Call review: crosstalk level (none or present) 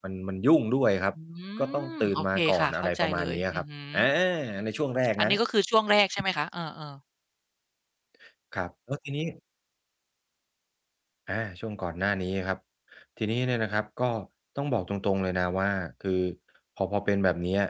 present